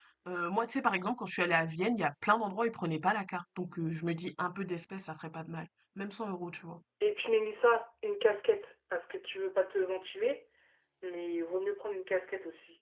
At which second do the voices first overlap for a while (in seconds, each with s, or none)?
none